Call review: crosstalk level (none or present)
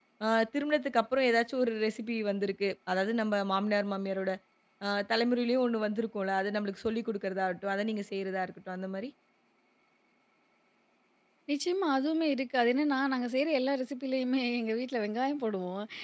none